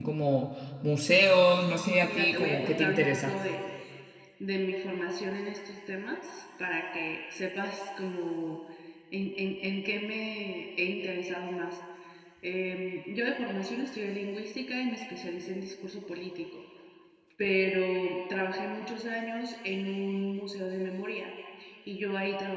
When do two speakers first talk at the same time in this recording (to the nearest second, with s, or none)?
2 s